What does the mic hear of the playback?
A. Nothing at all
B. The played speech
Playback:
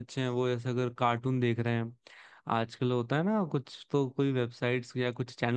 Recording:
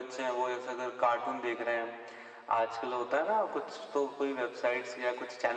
B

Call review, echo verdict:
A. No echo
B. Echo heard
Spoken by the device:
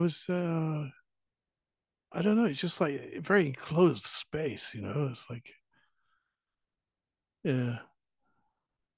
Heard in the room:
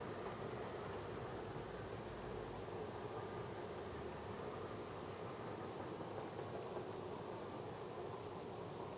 A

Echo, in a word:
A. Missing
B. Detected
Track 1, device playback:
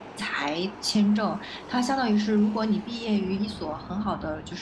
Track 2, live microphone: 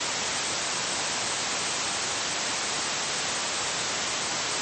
A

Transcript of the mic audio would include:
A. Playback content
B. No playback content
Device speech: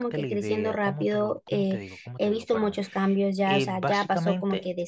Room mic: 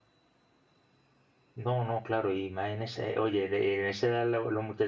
B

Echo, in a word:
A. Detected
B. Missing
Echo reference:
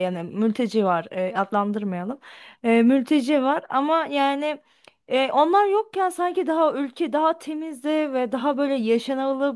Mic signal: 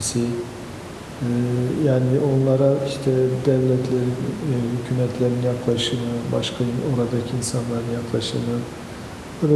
B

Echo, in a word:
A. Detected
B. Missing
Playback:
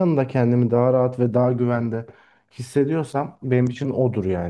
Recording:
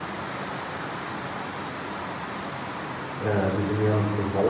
B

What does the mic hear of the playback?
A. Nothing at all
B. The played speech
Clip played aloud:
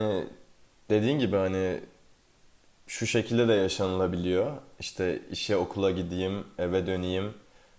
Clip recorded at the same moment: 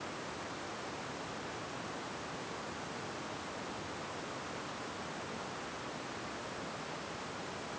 A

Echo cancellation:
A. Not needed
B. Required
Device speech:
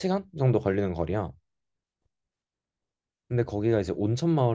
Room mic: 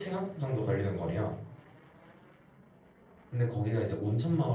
B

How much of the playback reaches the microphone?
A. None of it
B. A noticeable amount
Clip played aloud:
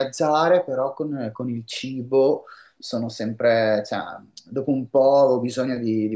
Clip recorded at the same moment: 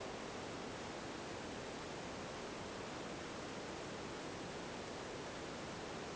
A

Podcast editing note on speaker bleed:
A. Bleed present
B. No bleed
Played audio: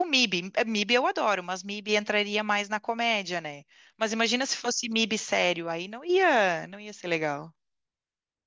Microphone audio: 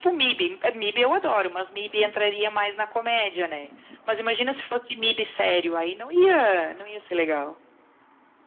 A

